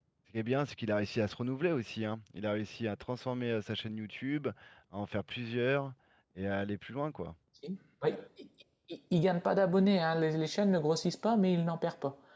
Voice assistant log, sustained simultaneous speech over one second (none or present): none